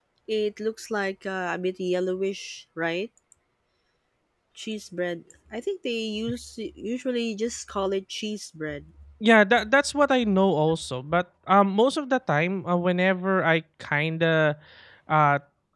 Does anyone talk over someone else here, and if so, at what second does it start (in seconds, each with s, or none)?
none